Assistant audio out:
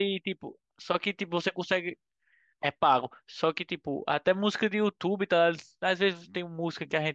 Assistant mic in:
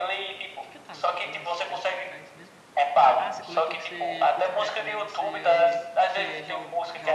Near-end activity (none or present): present